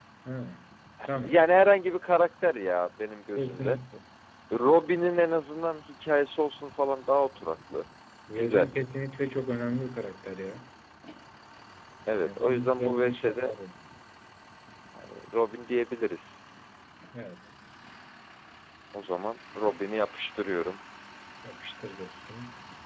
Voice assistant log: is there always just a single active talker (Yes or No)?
No